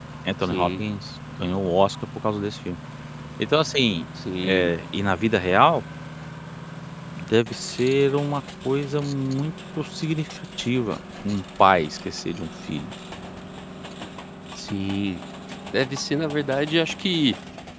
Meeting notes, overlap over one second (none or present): none